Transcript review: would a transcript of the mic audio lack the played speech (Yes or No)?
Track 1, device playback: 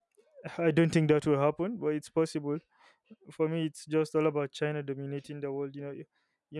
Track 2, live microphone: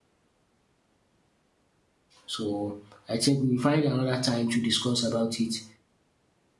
Yes